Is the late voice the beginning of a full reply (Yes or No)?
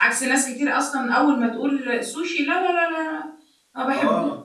Yes